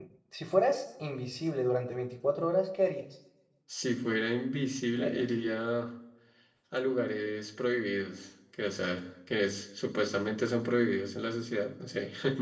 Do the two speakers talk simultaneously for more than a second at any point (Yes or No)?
No